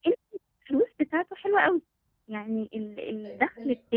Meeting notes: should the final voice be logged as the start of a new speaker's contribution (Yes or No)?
No